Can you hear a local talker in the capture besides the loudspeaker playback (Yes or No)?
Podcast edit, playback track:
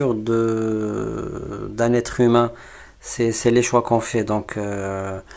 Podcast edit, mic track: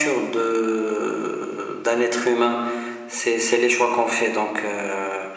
No